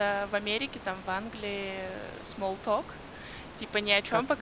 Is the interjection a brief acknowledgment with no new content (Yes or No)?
Yes